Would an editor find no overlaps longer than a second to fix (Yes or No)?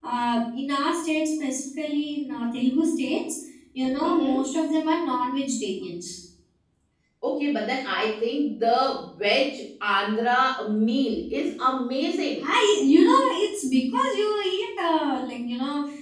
Yes